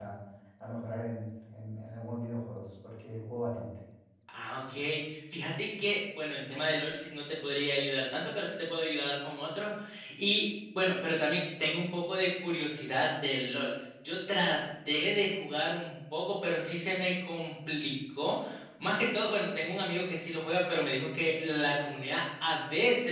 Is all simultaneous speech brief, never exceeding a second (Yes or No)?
Yes